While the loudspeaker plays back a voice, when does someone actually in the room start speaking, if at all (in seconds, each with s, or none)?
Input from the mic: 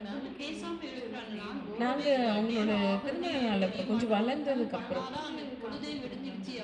1.8 s